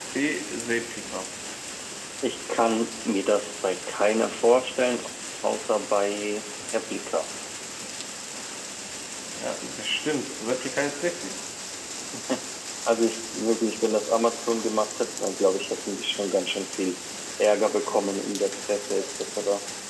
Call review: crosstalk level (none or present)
none